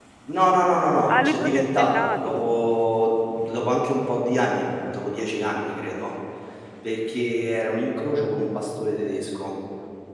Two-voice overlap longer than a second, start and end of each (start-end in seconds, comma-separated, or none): 1.1-2.4